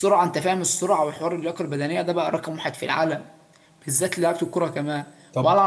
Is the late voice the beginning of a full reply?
No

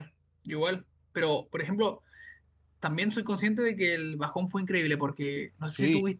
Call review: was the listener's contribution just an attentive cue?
Yes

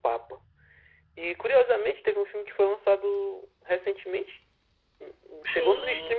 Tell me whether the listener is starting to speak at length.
No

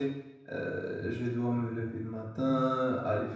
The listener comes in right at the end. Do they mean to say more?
No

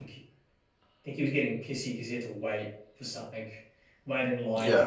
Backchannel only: Yes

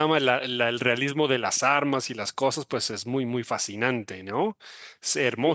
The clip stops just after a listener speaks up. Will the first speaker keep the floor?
No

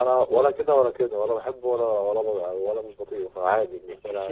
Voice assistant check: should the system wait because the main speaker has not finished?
No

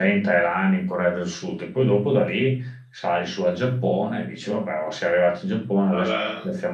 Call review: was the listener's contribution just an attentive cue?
Yes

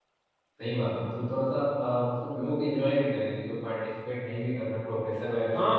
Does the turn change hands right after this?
Yes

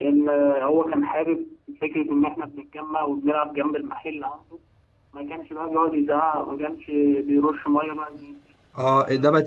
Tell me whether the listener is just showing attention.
No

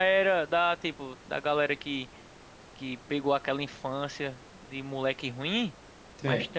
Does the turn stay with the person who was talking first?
Yes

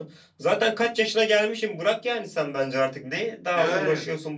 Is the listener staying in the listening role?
No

